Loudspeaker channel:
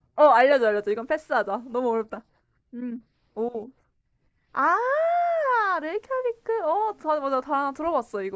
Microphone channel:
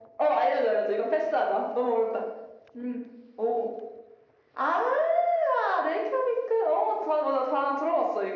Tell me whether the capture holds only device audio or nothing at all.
Yes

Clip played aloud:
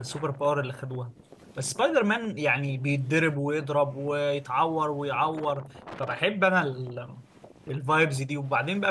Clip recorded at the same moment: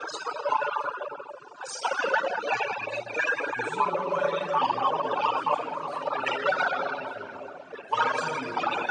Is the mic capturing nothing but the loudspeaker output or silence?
No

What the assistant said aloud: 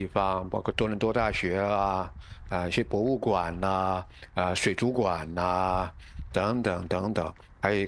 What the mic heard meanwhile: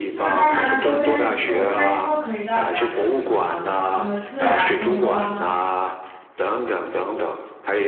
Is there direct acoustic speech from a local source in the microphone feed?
Yes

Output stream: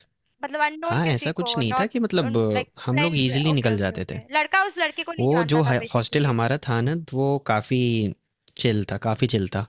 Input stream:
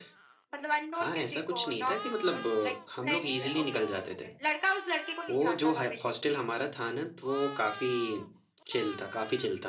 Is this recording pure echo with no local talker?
Yes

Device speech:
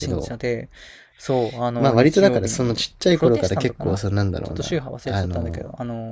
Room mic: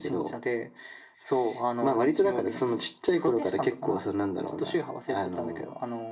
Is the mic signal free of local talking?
Yes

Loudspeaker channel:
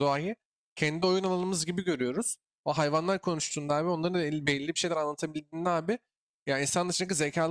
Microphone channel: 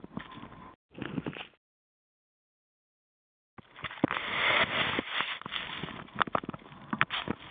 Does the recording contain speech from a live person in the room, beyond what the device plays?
No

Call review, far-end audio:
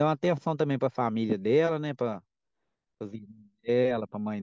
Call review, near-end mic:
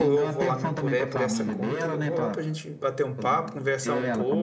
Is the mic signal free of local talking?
No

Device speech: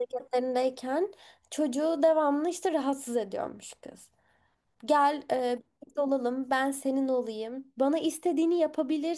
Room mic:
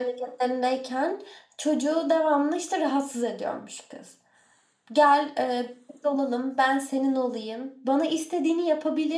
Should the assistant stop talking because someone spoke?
No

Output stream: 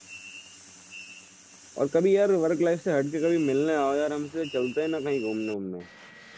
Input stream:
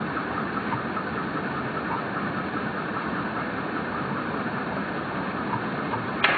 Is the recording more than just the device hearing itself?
No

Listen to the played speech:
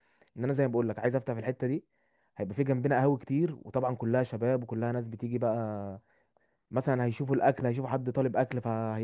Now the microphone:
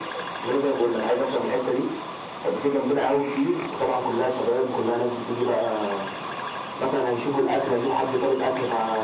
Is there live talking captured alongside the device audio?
No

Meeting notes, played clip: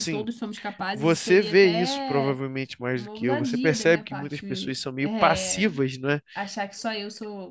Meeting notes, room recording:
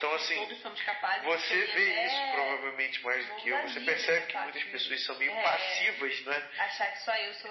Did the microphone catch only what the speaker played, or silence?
Yes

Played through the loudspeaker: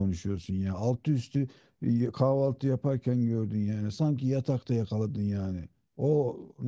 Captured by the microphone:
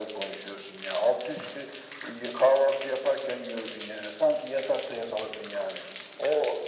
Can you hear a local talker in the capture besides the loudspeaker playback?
No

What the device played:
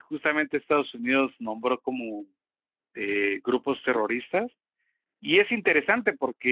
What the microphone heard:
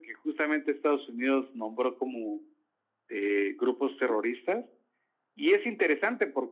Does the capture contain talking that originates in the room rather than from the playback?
No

